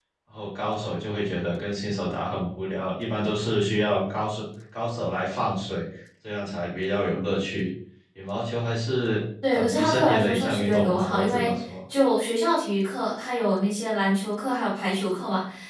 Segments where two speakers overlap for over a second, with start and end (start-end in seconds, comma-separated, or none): 9.5-11.5